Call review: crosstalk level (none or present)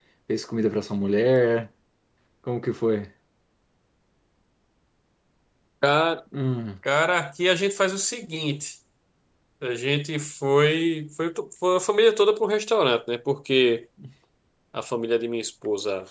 none